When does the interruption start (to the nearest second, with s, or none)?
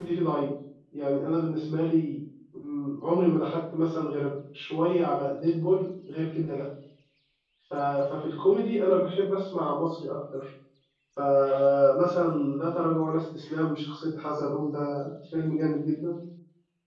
none